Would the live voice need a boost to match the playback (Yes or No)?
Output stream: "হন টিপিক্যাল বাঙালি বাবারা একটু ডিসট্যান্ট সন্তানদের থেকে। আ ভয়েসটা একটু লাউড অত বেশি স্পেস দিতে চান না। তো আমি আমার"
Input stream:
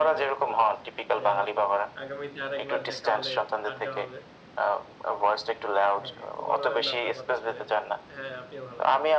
Yes